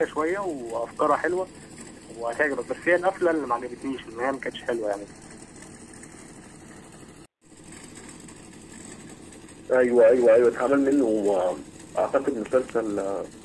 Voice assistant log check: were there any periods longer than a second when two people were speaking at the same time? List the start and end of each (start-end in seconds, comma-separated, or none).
none